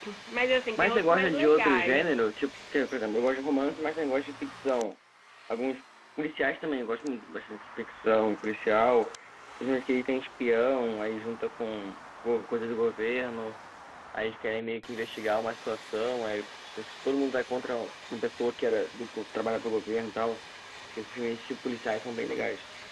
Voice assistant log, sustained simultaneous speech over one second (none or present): present